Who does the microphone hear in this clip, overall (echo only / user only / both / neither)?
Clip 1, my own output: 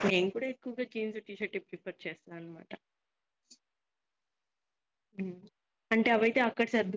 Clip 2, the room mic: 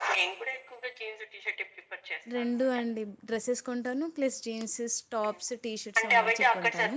both